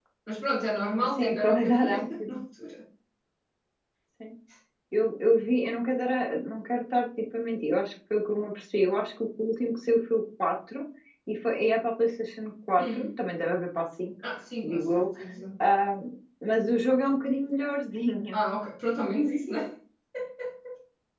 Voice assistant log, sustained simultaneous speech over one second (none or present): present